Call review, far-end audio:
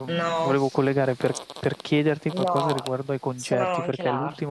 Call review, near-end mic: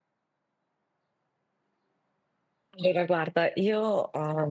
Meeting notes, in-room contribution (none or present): present